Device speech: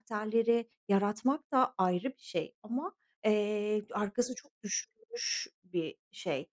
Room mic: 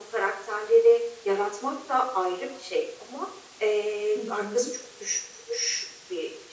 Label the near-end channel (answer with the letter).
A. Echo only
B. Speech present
B